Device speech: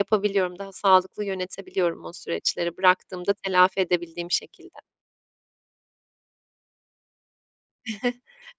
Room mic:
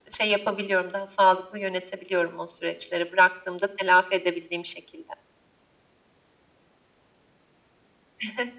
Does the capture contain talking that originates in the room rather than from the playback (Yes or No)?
No